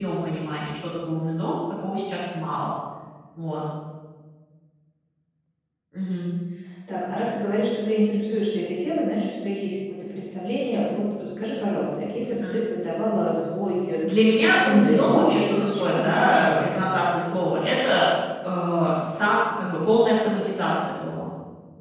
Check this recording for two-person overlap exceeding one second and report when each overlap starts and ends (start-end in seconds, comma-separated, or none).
14.7-16.7